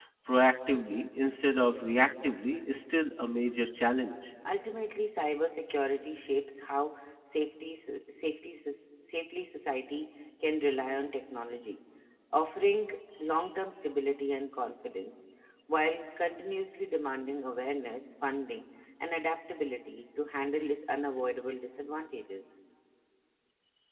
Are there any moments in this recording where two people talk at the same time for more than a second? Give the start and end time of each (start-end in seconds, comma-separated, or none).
none